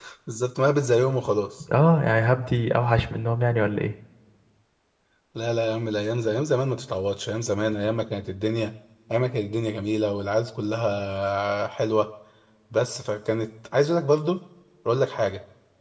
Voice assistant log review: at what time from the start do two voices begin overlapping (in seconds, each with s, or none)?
none